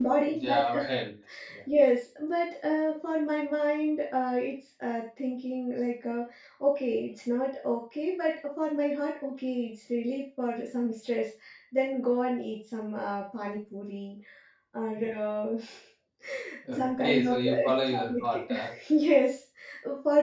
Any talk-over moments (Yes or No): Yes